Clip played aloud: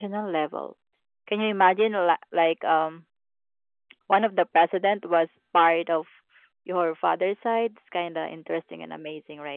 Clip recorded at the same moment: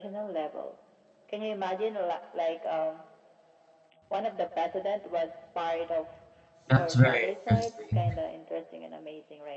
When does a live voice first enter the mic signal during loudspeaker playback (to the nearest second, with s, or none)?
7 s